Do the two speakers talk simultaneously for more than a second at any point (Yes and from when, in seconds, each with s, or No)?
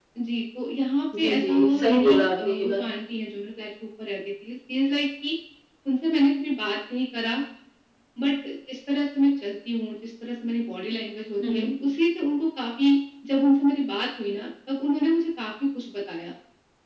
Yes, from 1.2 s